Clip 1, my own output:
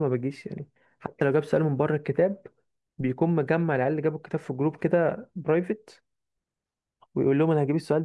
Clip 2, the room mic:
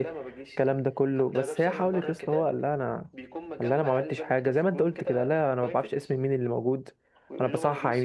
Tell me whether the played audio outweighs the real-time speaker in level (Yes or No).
No